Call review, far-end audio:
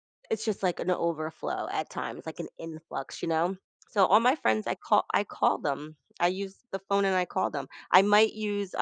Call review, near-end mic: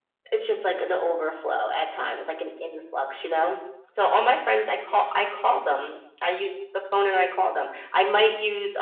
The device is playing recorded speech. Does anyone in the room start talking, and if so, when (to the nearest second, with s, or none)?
none